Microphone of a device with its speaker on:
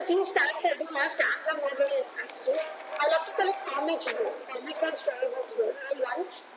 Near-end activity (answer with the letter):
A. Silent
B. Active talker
A